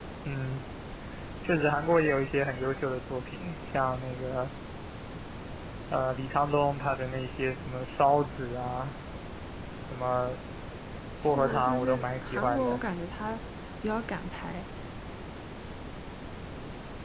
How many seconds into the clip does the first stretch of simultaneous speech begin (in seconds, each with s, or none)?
11.2 s